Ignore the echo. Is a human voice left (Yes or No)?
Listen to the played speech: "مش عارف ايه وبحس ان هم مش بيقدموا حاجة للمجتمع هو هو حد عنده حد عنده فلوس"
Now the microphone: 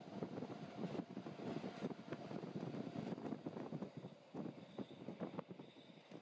No